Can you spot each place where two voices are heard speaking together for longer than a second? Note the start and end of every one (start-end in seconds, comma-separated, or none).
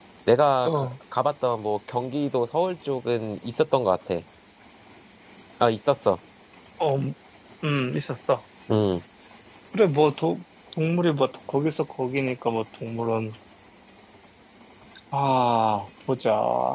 none